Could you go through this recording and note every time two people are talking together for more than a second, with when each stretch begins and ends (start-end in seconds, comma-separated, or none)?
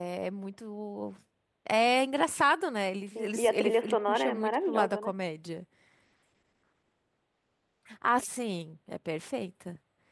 3.2-5.1